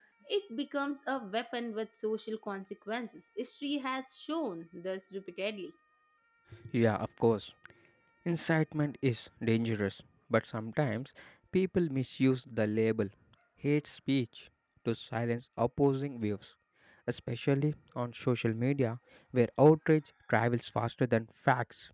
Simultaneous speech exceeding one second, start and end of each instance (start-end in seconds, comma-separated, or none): none